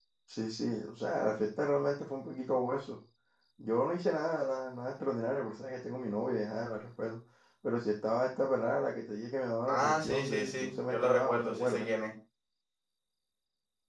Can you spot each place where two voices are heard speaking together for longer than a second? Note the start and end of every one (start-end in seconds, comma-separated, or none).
9.7-11.9